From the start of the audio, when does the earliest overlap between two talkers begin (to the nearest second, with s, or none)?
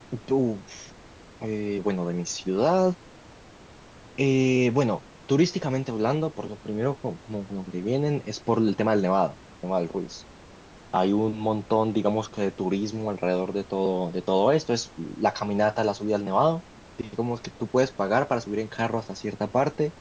none